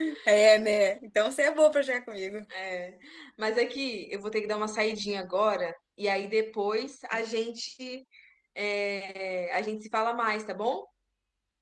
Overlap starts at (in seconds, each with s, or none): none